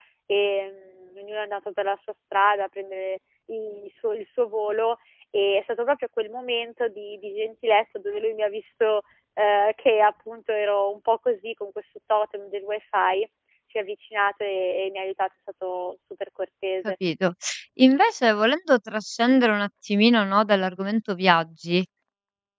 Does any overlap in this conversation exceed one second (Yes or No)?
No